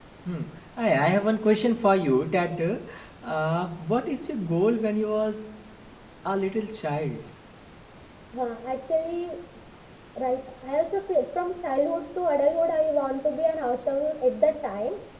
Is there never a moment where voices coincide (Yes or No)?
Yes